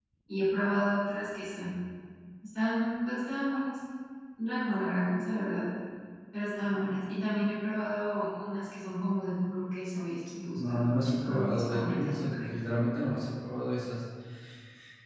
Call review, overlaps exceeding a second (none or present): present